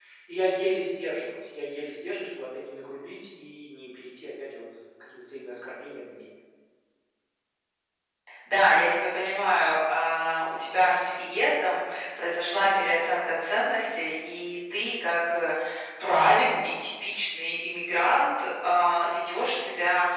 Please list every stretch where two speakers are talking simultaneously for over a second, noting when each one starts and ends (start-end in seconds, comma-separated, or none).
none